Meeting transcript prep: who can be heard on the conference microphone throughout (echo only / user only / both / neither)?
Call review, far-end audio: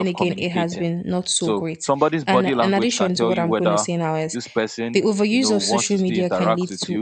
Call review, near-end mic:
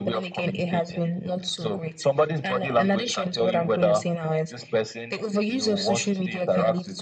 echo only